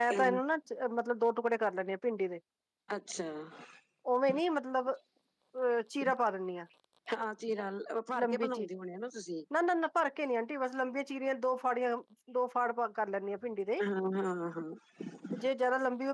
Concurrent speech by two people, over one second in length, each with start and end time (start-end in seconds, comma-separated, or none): none